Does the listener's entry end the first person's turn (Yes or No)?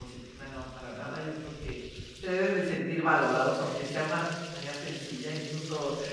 No